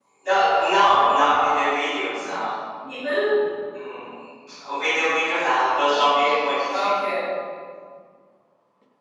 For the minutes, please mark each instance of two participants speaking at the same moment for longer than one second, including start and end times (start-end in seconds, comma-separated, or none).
none